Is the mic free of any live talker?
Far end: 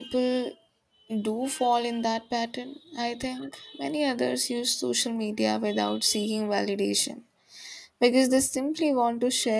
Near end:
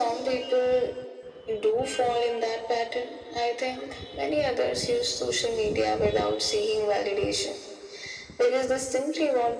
Yes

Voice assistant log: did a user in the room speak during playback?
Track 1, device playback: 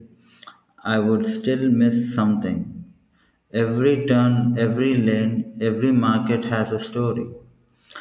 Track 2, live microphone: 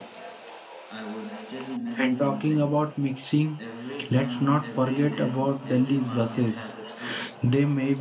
Yes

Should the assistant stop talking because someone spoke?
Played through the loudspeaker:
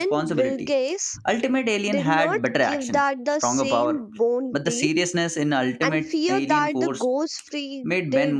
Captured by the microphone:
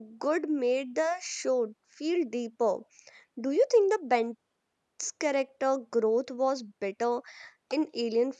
Yes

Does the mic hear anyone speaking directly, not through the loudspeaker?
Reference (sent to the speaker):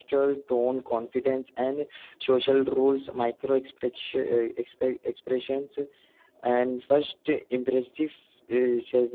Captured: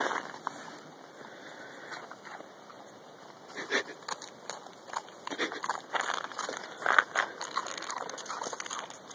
No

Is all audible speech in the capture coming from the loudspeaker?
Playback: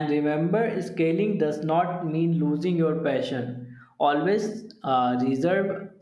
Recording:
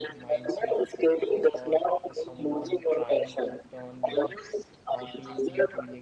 No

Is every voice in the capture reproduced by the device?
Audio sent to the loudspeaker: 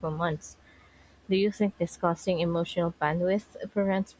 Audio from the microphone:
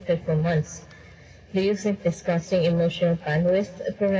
Yes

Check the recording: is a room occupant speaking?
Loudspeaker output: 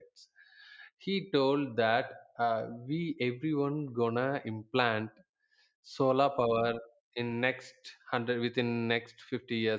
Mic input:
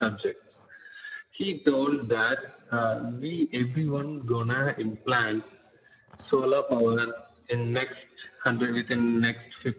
No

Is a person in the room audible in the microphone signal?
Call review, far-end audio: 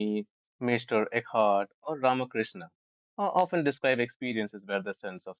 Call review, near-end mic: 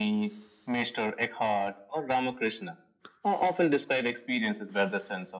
No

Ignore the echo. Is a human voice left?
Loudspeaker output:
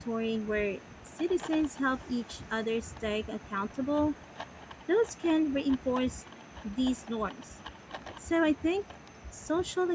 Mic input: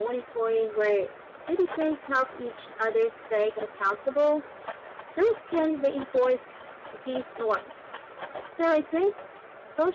No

